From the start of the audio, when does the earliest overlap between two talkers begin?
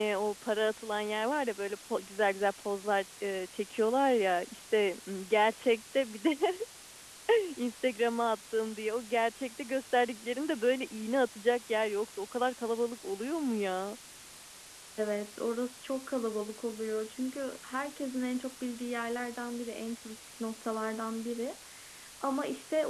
none

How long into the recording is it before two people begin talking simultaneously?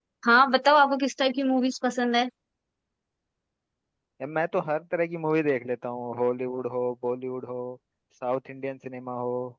none

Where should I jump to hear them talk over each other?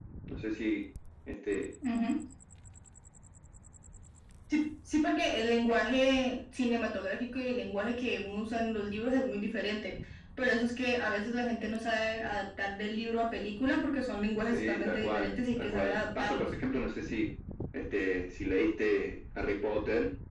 14.5 s

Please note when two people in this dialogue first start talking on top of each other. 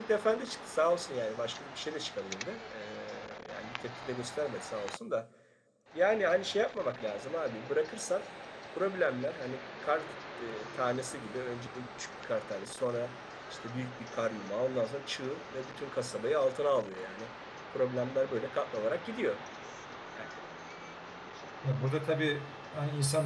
none

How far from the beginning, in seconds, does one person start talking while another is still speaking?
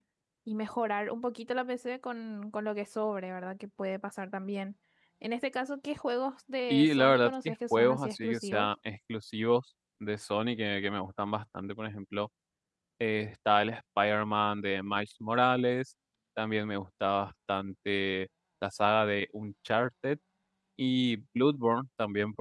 6.7 s

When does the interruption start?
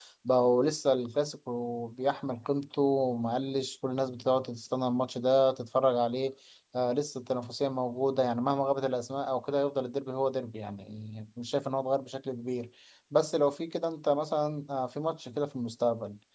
none

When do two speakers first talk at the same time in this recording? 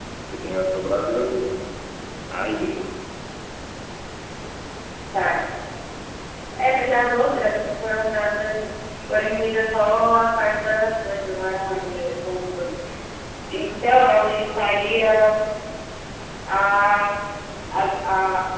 none

